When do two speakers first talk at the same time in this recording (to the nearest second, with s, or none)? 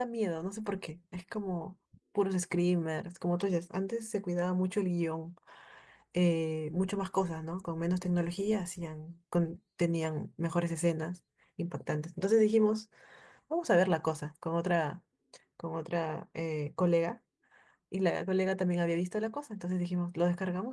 none